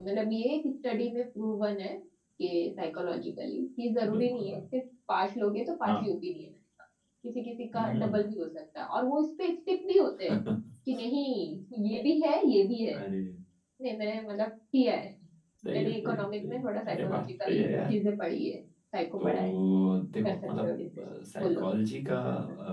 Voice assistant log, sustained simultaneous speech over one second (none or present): present